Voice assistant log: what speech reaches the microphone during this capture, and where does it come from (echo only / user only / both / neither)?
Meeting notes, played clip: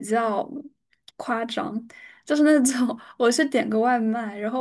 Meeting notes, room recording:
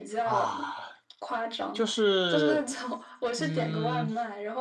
both